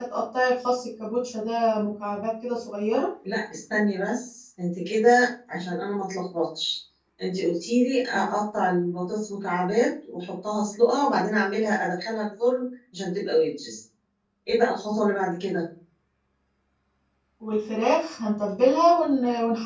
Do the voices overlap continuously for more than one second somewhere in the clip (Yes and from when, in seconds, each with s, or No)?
No